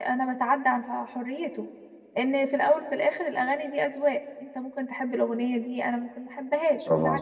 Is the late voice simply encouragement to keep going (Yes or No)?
No